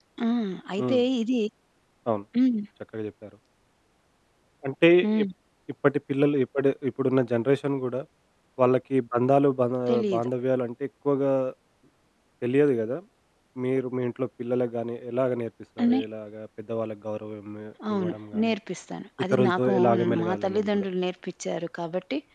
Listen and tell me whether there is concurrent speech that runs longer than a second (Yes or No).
Yes